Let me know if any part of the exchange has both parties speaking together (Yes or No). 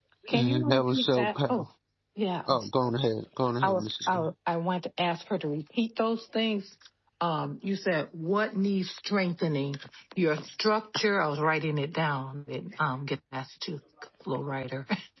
Yes